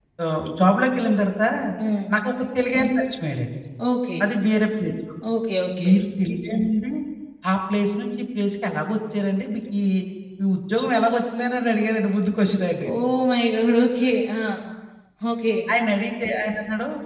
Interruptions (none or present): none